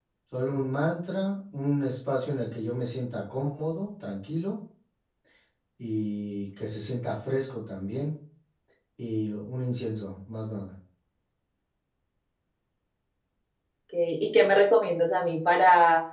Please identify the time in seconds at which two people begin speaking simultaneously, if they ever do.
none

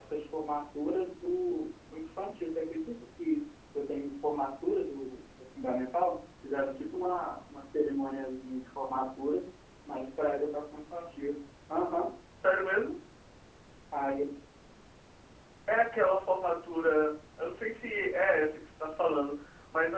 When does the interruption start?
none

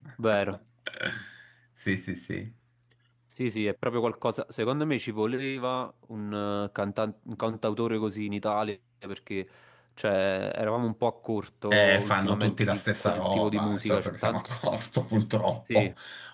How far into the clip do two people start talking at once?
12 s

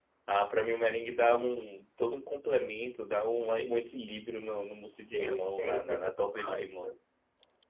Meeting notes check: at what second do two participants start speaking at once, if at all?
5 s

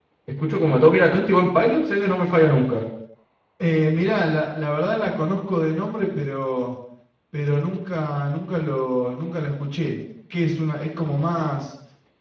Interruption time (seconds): none

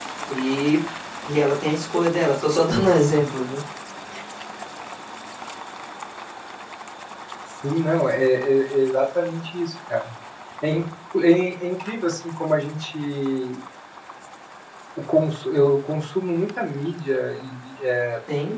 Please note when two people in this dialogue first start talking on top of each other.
none

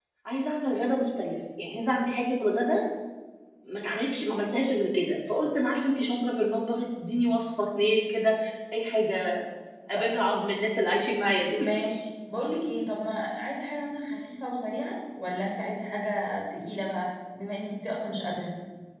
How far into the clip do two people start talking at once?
none

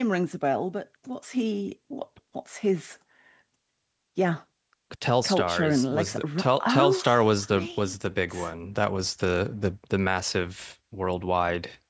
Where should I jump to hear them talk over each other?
5 s

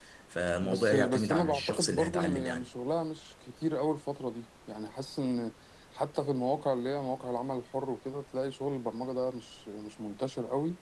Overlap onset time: 1 s

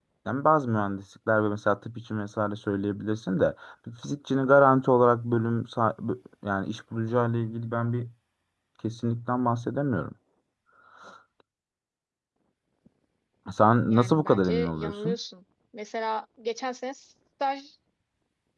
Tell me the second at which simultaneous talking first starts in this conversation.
14 s

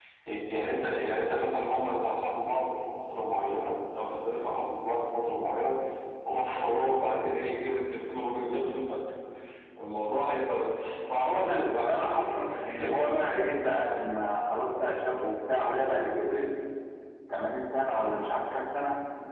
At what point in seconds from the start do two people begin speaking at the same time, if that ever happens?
11 s

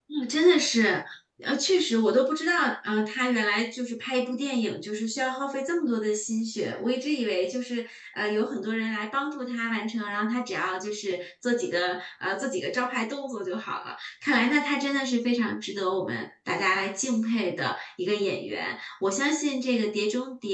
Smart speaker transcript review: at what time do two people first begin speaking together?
none

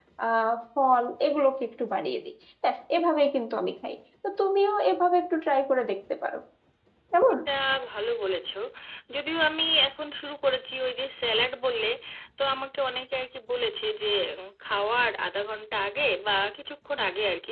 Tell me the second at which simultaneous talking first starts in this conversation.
none

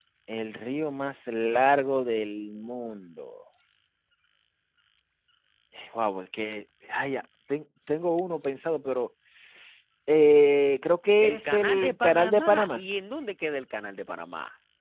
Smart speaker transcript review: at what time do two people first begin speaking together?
11 s

